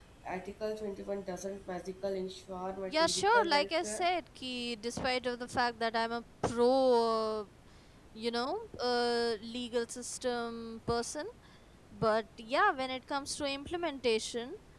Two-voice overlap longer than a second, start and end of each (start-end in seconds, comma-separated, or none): 2.9-4.1